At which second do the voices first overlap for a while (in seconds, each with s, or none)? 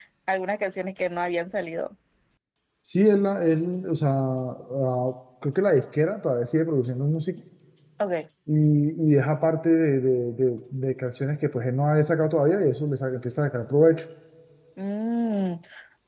none